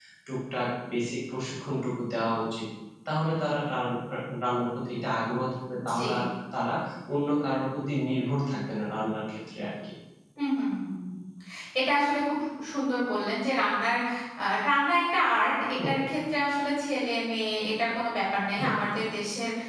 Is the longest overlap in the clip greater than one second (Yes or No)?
No